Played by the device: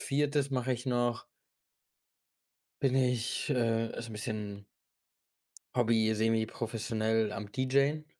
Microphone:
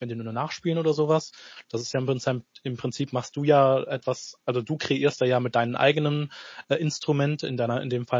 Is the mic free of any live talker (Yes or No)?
No